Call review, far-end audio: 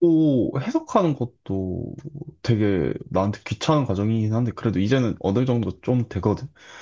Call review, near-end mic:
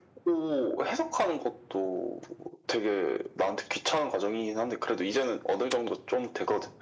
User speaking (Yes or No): No